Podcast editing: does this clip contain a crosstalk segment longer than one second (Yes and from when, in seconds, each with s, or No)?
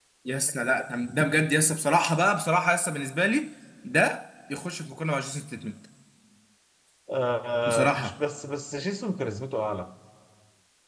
No